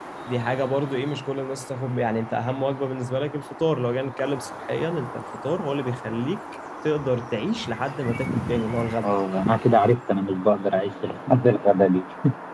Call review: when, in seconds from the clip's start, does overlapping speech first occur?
none

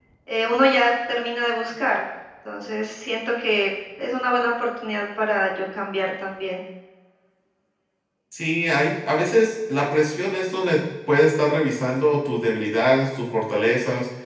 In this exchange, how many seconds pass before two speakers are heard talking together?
none

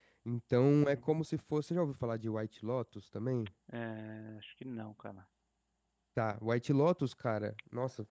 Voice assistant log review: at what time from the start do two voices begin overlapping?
none

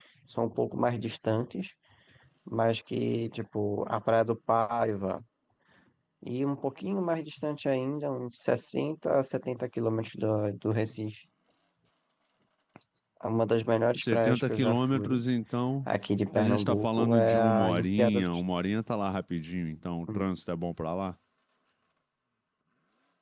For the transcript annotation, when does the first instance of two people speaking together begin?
14.0 s

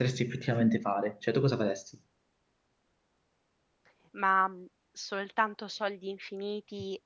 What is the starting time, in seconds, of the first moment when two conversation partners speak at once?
none

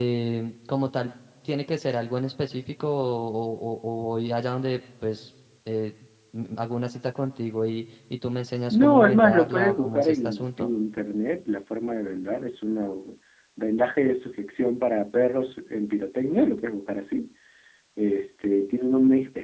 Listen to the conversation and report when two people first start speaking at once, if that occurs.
8.7 s

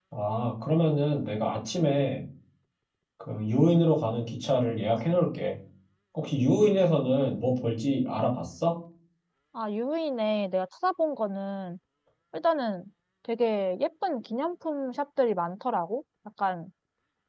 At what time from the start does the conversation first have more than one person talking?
none

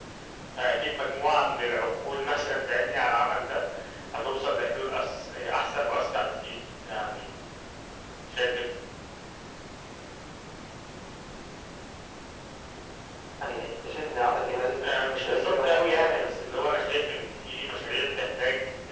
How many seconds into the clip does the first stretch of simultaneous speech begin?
14.7 s

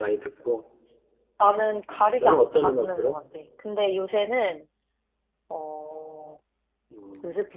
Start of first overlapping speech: 1.9 s

